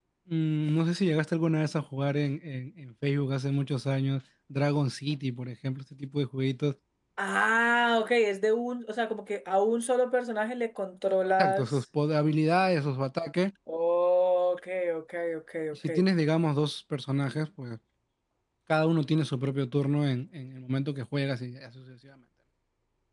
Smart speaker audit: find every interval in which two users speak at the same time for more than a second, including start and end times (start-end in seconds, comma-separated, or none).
none